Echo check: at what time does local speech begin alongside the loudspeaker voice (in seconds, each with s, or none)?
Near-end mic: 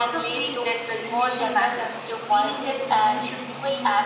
none